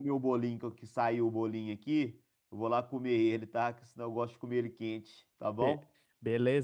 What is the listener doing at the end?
taking over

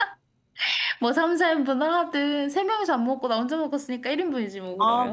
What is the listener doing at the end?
taking over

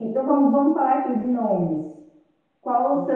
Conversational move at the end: listening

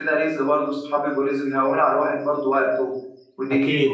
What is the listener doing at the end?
taking over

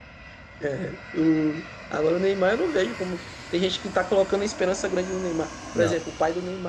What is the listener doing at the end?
listening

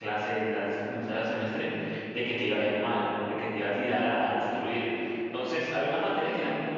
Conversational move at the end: listening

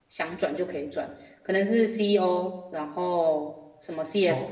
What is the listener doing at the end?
taking over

